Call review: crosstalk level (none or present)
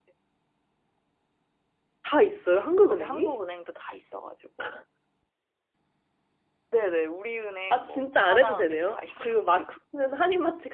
present